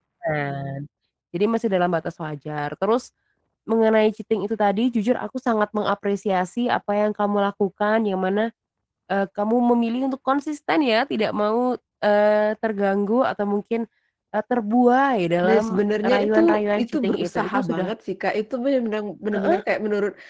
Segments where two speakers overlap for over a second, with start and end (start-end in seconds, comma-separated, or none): 15.4-17.9